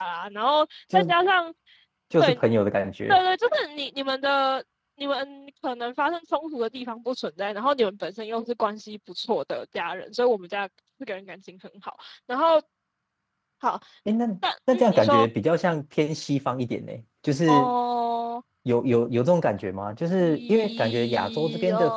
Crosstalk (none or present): present